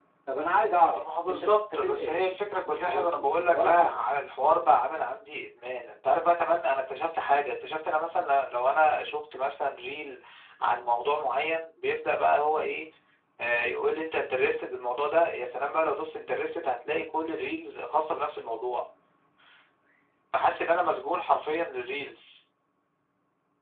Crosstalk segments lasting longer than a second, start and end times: 1.0-2.2, 2.7-4.0

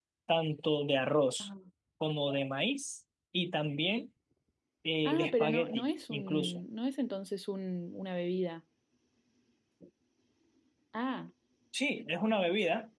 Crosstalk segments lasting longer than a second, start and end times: 5.0-6.6

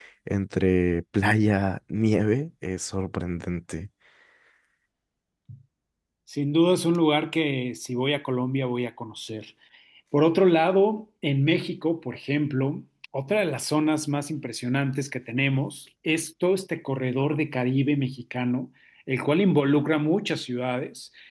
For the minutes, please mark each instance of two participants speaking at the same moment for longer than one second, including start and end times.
none

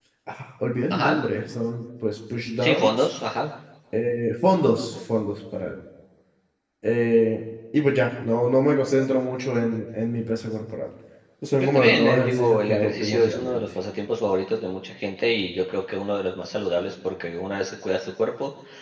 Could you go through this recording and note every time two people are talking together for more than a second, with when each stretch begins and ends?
11.6-13.6

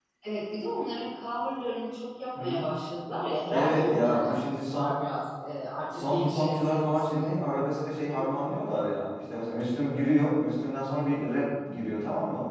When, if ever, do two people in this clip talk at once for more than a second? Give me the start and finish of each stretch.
3.5-4.9, 5.9-7.4

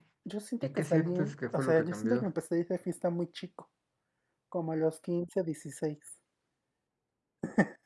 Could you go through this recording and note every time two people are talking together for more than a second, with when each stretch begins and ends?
0.6-2.3

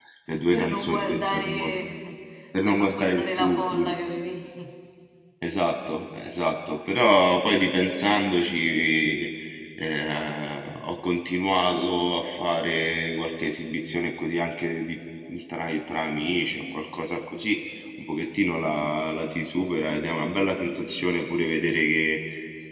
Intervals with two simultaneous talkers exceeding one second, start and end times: 0.5-1.7, 2.6-3.9

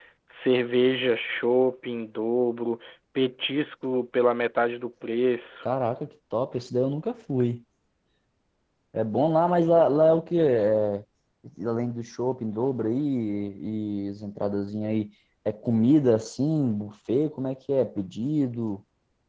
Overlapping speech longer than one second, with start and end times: none

